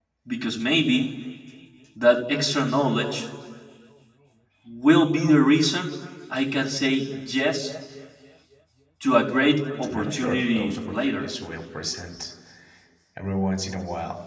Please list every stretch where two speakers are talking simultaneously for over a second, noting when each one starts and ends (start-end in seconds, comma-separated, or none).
9.9-11.2